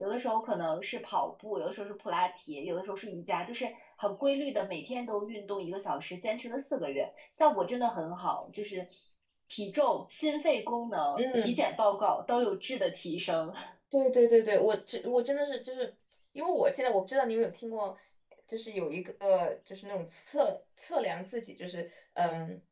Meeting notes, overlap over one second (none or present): none